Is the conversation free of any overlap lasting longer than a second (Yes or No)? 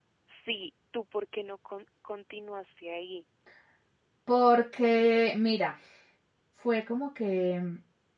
Yes